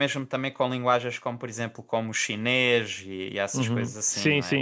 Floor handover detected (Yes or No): Yes